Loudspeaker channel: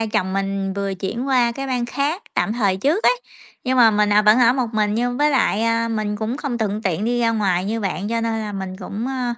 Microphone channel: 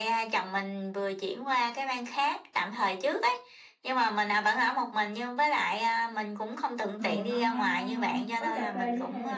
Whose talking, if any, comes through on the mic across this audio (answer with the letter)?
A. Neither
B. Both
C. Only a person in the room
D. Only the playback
B